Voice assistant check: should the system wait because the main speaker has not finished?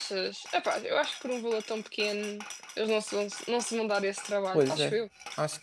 No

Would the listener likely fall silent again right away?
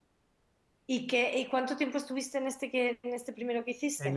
No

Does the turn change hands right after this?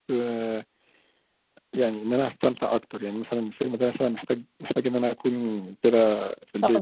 Yes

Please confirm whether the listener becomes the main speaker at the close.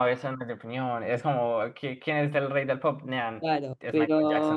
Yes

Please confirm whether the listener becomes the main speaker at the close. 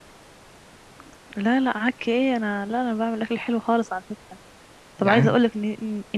No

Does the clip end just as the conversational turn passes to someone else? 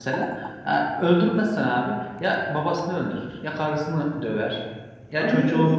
No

